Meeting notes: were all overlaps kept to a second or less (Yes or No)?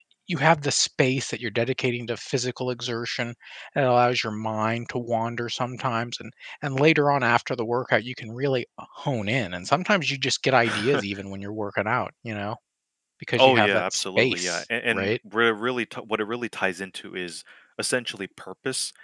No